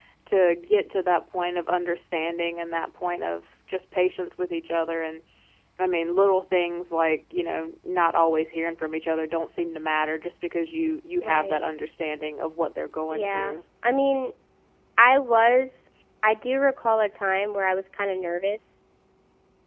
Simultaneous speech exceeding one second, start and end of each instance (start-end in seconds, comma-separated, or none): none